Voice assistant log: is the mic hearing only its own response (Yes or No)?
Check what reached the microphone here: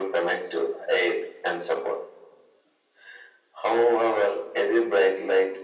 Yes